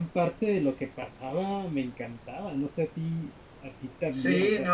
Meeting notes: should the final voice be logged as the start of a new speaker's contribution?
Yes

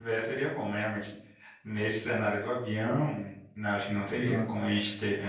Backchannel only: Yes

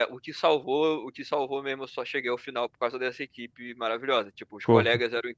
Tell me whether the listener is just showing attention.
Yes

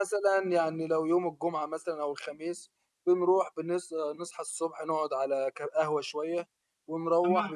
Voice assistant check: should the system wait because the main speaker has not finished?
Yes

